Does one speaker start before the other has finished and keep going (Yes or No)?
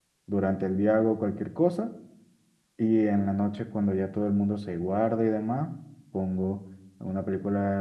No